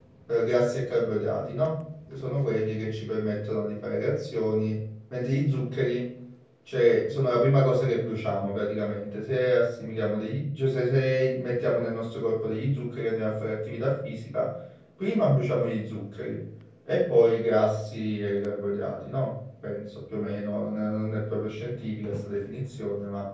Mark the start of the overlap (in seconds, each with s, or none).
none